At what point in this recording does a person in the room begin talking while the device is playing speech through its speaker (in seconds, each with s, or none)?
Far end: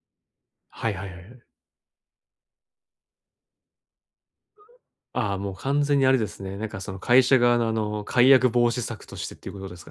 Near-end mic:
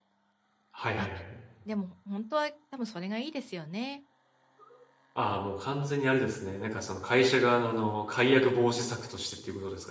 0.9 s